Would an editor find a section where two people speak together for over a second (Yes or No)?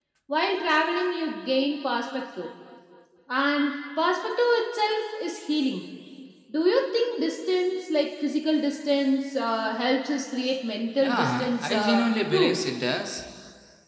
Yes